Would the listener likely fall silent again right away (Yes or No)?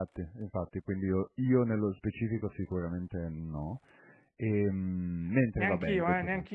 No